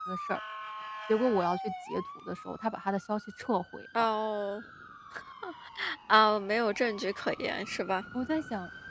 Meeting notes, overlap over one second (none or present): none